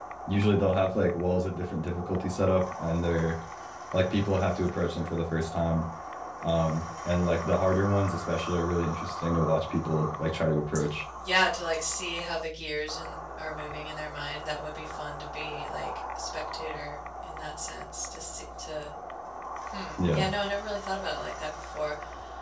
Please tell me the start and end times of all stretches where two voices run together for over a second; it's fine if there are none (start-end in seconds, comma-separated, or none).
none